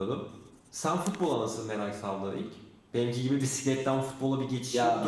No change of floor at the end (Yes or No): No